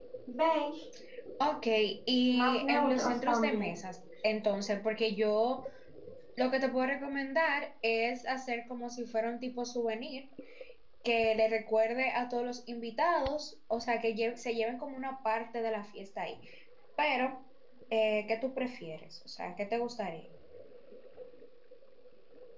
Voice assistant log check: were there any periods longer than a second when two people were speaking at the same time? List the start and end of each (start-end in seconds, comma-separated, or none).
2.3-3.8